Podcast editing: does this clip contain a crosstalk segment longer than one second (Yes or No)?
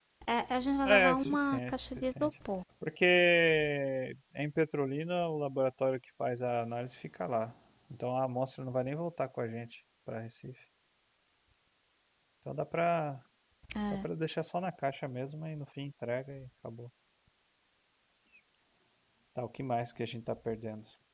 Yes